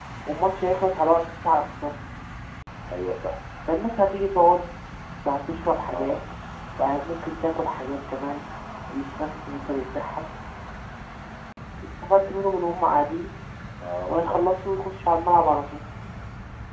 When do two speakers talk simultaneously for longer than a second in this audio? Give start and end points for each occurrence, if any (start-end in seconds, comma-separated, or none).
none